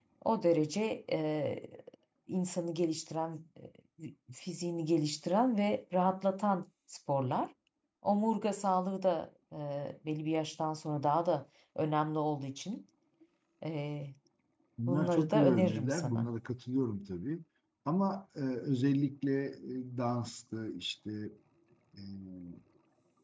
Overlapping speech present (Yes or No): Yes